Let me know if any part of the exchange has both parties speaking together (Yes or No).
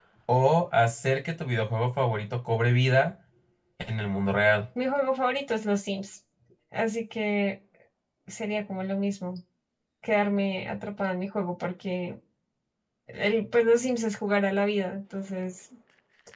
No